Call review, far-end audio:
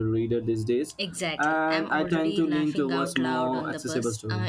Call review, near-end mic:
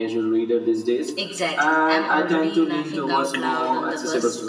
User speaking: No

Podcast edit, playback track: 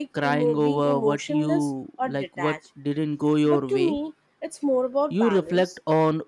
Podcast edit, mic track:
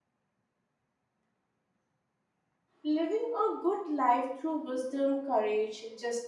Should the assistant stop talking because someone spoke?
Yes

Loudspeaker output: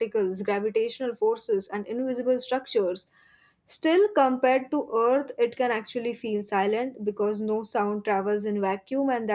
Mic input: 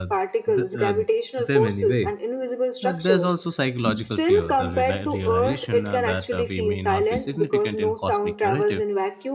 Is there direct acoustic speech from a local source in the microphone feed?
Yes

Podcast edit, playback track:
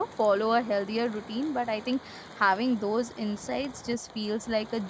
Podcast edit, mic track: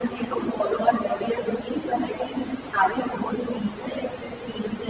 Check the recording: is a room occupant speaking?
No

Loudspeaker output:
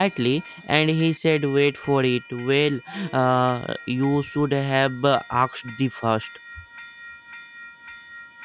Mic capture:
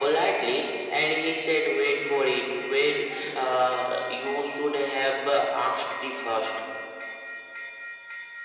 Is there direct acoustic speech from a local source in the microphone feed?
No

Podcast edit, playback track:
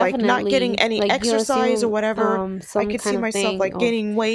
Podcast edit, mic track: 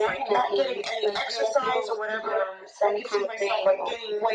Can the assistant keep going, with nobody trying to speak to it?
Yes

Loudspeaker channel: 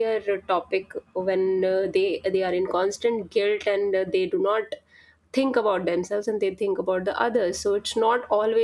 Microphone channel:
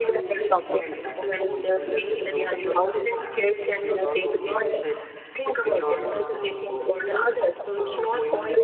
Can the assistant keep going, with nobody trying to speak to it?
No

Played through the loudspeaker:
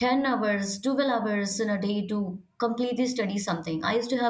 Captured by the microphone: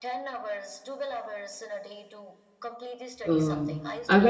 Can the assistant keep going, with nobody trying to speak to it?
No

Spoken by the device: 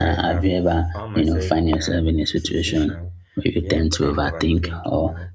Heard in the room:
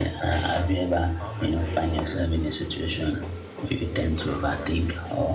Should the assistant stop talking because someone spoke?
No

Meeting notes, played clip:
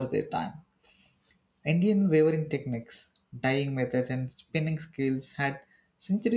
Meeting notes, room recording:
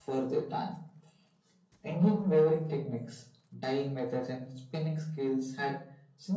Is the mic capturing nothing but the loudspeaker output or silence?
Yes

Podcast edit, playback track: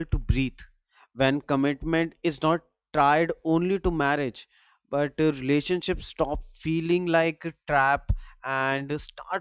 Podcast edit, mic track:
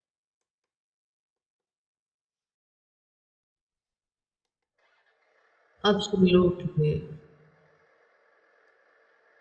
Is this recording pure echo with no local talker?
No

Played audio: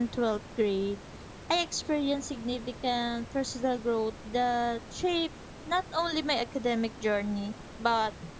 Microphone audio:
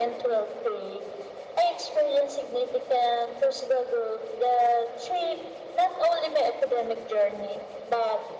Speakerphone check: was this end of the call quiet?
Yes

